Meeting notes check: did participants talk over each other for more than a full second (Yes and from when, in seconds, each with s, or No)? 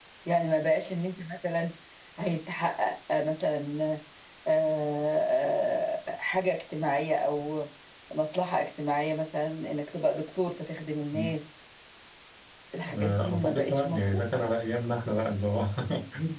Yes, from 12.7 s